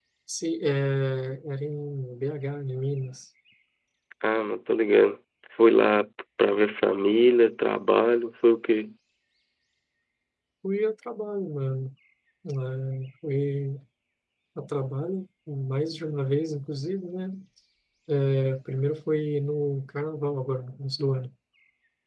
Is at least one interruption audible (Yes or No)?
No